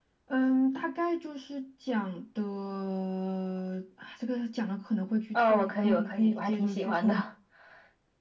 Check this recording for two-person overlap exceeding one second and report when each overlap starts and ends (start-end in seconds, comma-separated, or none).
5.3-7.3